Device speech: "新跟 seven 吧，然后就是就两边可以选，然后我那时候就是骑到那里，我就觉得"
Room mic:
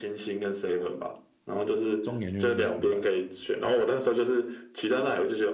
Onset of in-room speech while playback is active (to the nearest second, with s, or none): 2 s